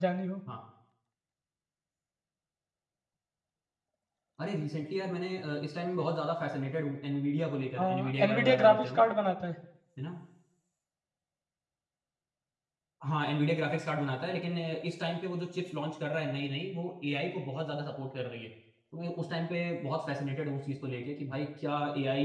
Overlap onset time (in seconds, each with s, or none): 7.8 s